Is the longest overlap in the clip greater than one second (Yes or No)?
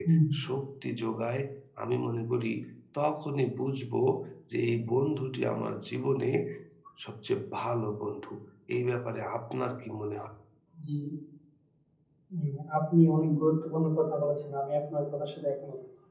No